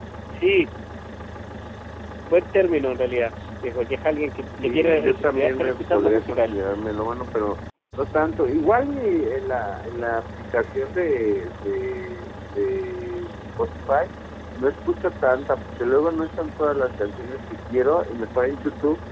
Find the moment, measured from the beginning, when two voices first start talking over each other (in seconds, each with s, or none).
4.6 s